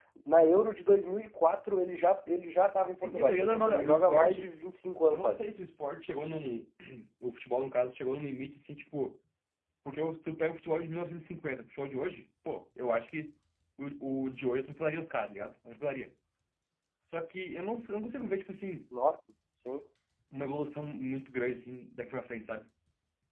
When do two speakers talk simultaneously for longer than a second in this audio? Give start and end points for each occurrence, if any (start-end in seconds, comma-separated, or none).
3.0-4.5